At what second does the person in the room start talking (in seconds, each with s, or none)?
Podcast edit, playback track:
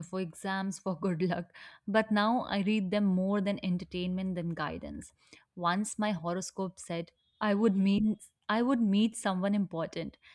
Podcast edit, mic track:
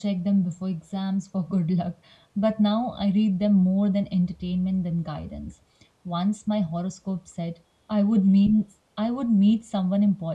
none